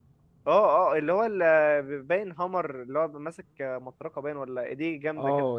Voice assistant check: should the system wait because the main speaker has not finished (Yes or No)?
No